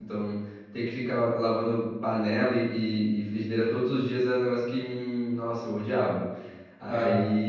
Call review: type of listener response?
listening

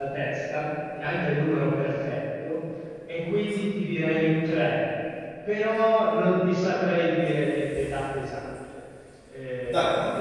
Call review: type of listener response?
taking over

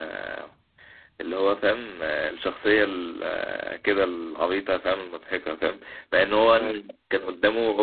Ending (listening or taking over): listening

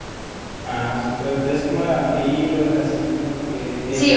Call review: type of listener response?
taking over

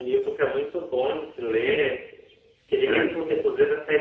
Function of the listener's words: listening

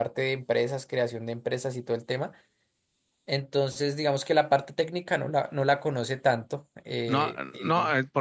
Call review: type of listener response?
taking over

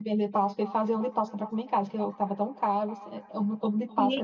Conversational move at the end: taking over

